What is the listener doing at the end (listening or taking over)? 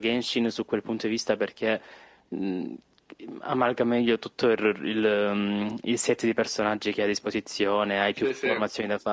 listening